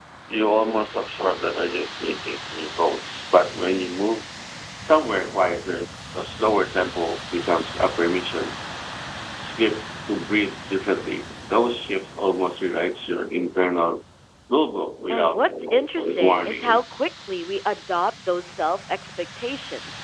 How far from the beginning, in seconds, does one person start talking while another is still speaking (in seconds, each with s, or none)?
15.1 s